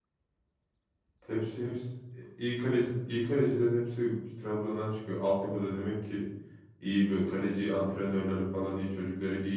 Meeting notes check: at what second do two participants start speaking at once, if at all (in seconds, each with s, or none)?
none